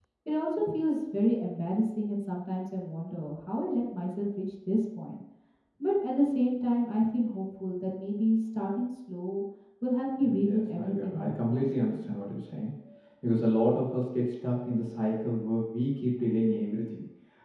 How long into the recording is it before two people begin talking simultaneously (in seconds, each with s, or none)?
10.2 s